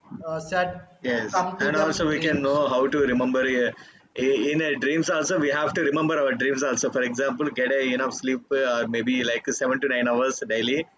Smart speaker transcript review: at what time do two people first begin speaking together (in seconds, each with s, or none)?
1.3 s